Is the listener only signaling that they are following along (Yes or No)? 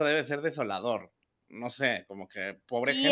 No